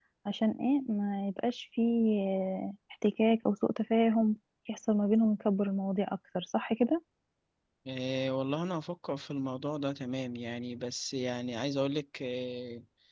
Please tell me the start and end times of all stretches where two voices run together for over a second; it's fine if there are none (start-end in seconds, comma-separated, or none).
none